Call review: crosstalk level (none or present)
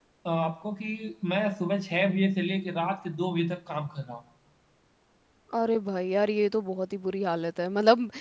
none